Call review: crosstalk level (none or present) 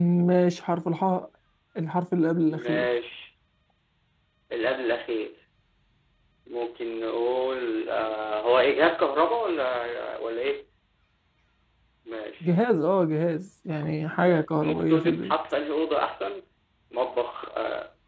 present